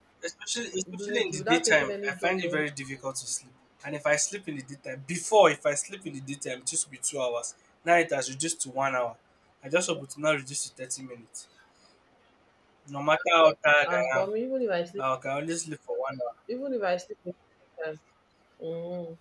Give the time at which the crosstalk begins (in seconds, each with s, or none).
0.9 s